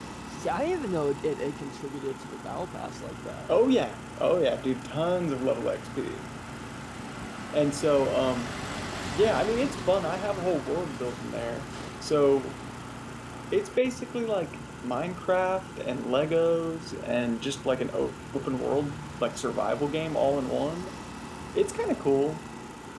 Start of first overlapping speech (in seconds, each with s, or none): none